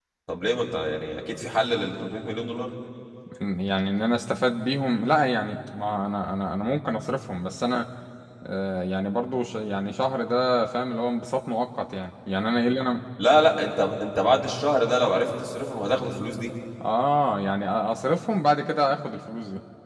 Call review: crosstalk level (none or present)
none